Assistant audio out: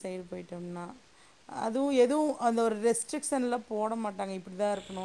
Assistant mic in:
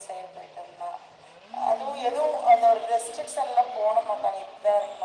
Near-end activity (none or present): none